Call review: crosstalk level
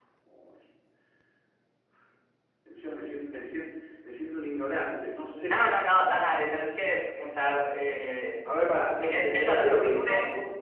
present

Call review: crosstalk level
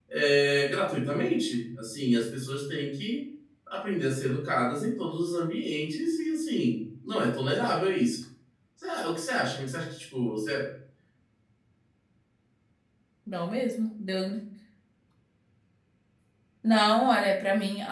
none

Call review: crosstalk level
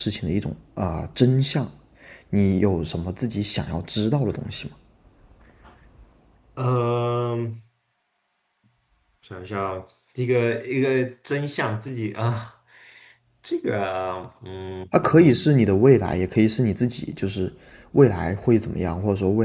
none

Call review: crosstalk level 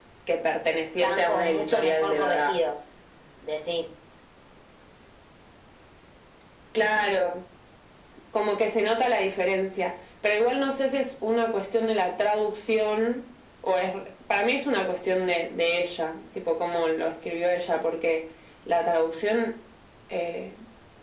present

